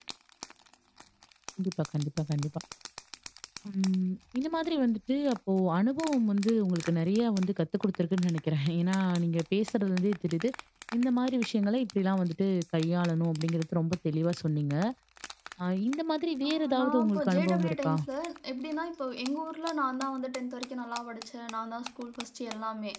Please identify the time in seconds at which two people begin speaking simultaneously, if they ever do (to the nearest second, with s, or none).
16 s